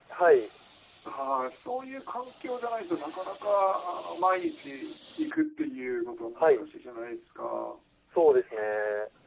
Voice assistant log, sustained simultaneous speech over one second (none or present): none